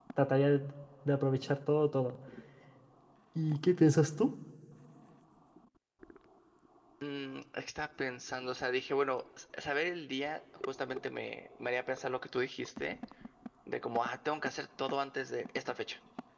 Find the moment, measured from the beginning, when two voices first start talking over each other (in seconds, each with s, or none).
none